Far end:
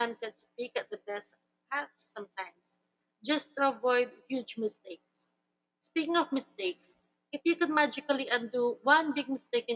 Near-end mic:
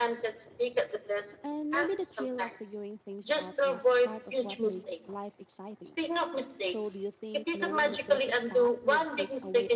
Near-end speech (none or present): present